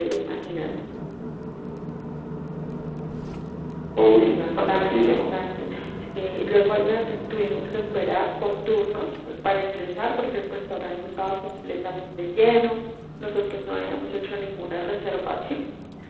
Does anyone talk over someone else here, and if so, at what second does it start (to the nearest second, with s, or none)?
4 s